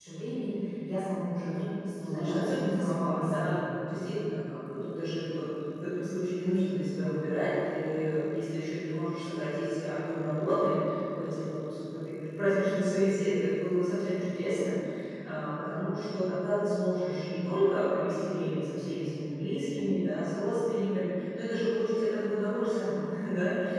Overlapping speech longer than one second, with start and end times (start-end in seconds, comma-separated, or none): 2.0-3.7